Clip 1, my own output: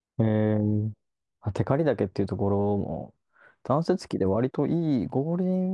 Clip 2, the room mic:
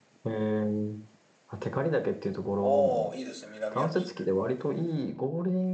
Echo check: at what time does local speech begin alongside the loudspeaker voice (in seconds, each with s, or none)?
2.6 s